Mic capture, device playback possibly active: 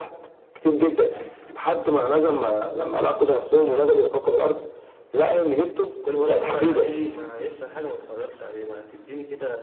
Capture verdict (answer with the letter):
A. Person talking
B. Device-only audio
A